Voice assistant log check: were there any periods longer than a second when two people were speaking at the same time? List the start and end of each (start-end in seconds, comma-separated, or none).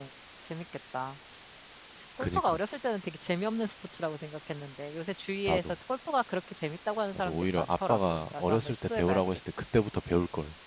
7.2-9.3